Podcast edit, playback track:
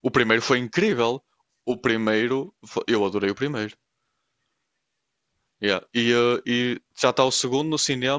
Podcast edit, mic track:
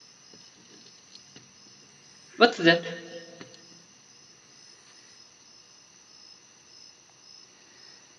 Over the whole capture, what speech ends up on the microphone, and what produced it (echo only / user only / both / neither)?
user only